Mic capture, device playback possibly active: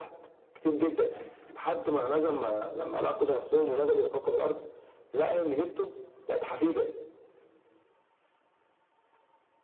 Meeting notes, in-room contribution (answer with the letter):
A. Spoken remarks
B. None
B